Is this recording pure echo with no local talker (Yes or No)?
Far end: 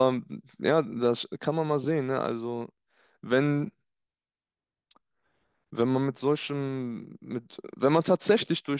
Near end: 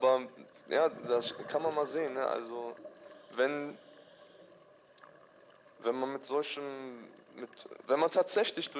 Yes